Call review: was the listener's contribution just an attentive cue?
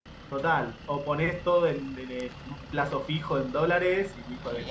No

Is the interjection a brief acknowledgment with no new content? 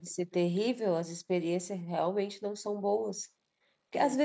Yes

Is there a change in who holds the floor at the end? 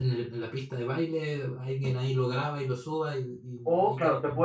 Yes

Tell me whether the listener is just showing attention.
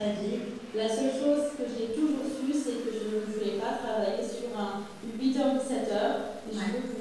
Yes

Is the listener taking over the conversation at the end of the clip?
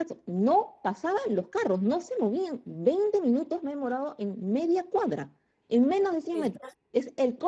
No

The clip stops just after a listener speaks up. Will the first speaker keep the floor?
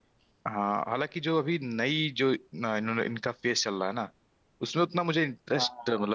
Yes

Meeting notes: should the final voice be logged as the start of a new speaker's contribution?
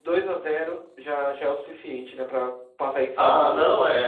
Yes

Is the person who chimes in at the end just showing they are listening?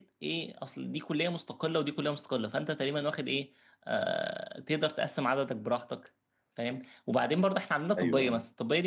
Yes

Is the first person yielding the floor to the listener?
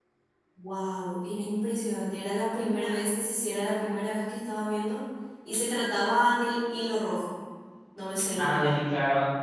Yes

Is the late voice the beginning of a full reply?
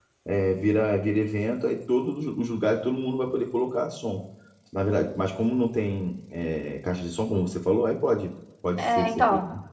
Yes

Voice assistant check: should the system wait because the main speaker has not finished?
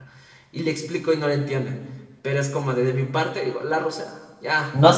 No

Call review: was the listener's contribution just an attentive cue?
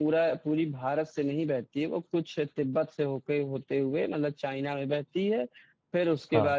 Yes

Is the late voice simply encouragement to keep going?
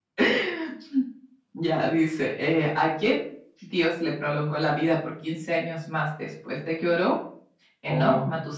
Yes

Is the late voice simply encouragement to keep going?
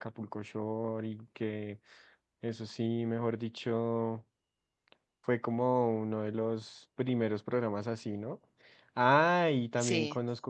Yes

